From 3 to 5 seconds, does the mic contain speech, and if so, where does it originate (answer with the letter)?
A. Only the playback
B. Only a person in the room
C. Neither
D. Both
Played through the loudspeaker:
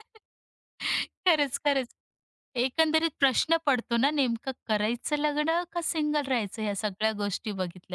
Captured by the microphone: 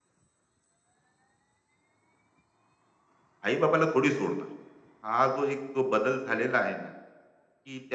B